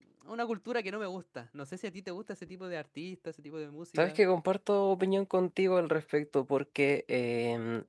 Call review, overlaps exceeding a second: none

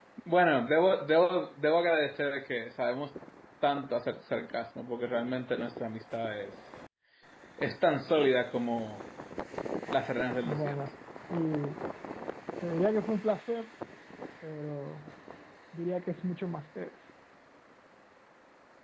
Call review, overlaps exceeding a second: none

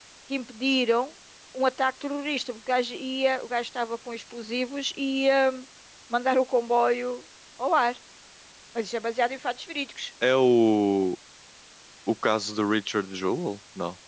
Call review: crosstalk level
none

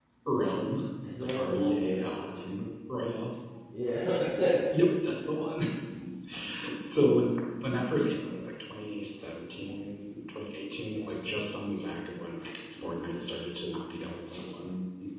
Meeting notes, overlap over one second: present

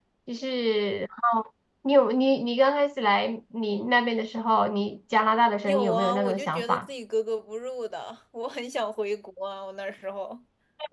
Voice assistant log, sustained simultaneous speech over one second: present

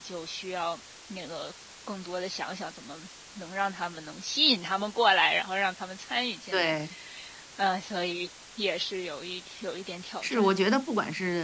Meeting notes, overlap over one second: none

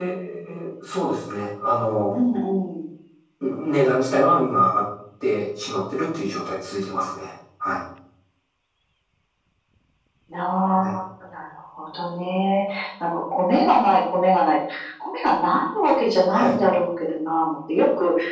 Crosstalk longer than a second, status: none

